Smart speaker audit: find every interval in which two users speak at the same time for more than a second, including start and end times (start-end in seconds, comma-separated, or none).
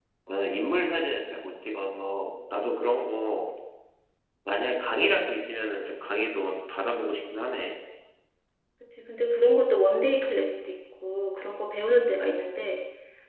none